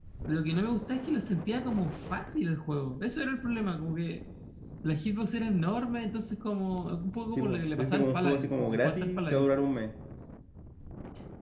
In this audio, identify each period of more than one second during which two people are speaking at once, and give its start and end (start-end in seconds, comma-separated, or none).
7.4-9.5